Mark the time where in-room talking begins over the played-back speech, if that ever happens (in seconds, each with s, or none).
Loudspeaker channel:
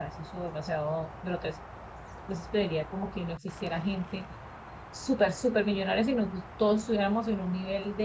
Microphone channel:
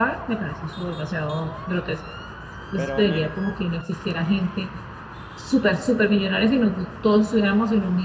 2.8 s